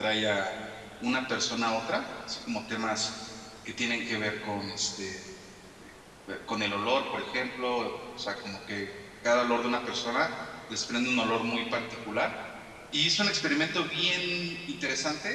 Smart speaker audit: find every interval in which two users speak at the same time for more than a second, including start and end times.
none

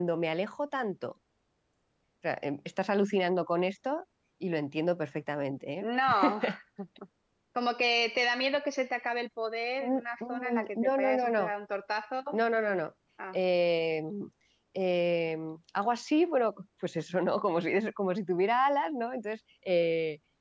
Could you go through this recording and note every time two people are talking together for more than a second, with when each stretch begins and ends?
9.8-11.5

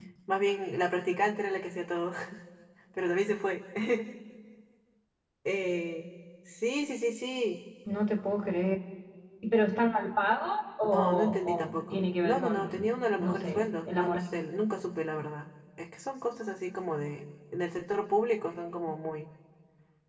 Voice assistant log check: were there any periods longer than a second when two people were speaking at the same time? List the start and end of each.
10.8-14.2

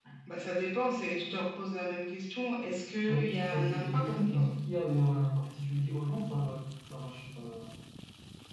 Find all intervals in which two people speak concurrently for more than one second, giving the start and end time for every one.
3.1-4.4

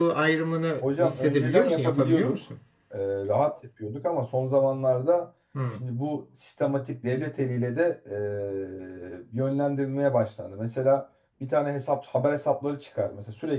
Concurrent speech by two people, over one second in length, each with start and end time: 0.8-2.4

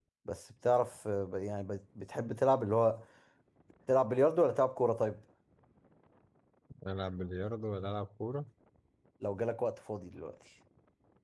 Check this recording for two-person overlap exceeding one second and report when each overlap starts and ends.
none

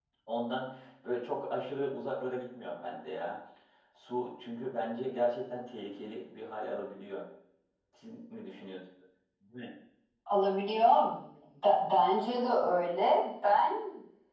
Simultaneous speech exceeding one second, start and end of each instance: none

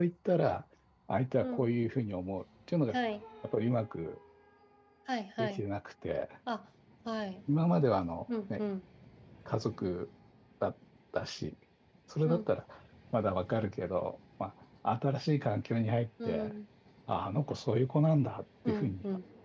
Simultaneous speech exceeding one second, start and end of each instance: none

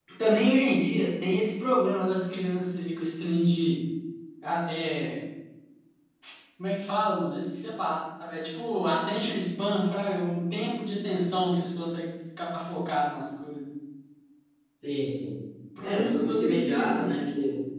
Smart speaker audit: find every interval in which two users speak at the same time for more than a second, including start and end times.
15.8-17.1

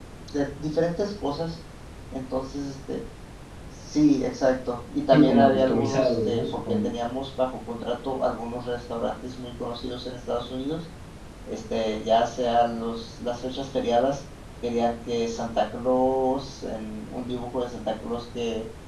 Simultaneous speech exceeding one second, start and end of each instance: 5.1-6.9

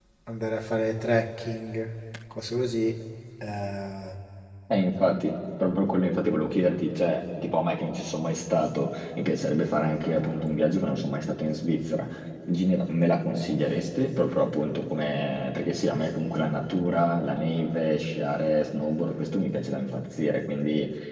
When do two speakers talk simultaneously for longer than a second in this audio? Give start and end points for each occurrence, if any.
none

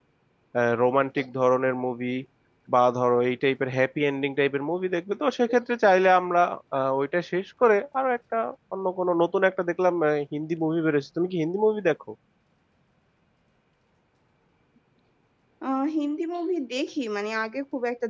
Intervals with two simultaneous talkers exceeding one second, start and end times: none

